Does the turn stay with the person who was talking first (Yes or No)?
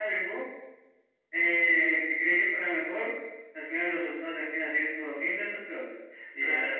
Yes